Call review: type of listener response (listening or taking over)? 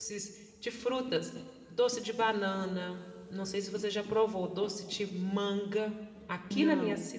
listening